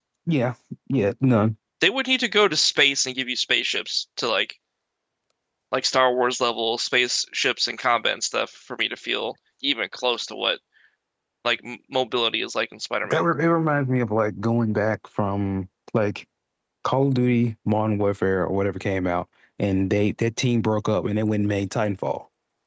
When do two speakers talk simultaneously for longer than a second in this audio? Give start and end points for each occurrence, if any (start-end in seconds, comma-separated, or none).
none